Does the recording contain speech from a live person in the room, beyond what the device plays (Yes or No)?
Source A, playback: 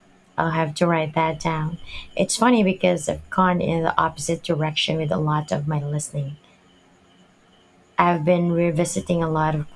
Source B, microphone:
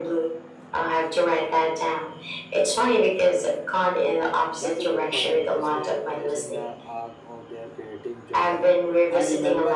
Yes